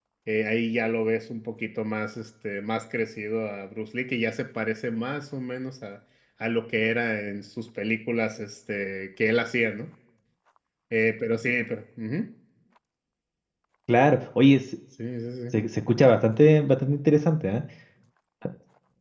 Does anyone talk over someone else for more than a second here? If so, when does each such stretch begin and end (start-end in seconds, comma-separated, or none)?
none